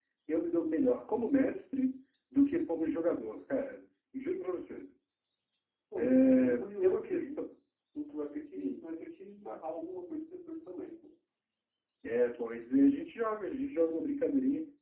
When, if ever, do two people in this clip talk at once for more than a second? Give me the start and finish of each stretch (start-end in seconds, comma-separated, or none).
6.2-7.4